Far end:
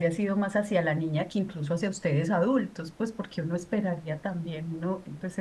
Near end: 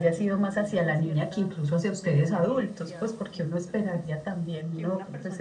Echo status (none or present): present